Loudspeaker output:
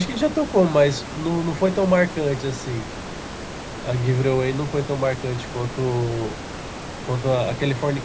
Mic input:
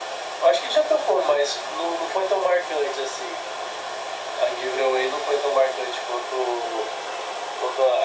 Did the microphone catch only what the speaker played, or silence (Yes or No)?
Yes